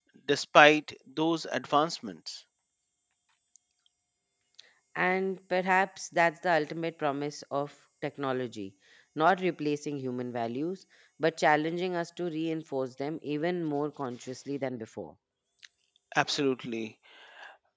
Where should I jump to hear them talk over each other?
none

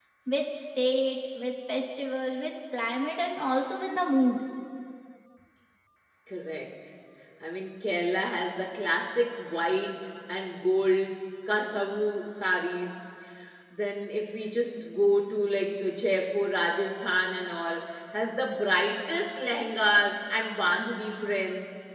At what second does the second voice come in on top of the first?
none

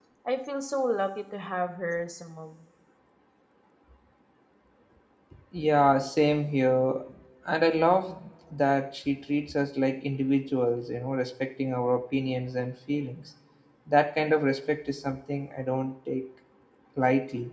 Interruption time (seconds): none

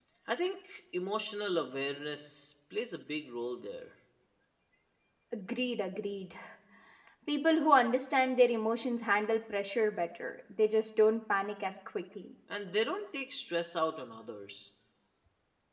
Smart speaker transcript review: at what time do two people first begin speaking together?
none

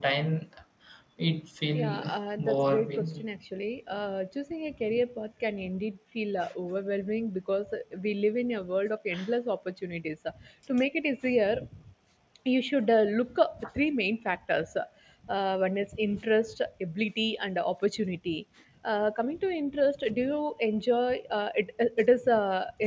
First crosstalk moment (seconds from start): 1.7 s

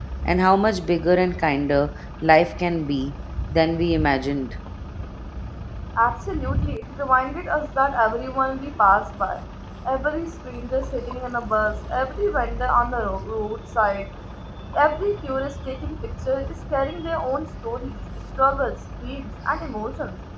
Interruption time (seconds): none

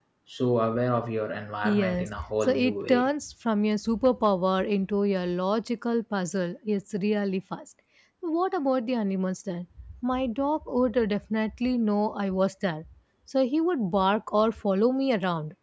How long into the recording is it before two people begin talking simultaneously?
1.6 s

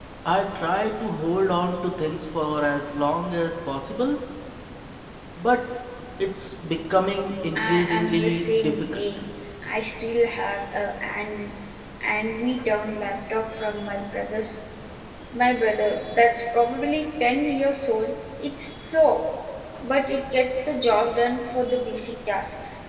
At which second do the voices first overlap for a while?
7.5 s

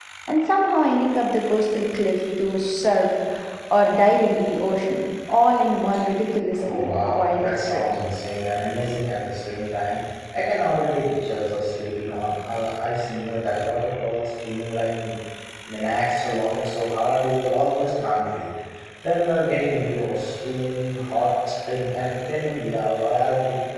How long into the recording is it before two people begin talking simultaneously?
6.6 s

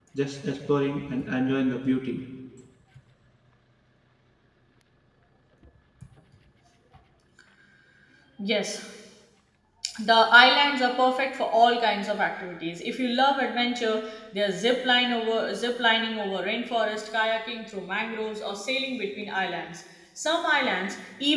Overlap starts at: none

